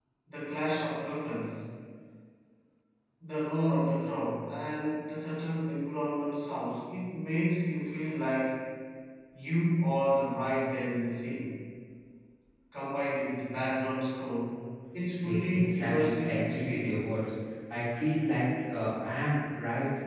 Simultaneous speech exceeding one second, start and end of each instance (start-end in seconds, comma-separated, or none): 15.2-17.2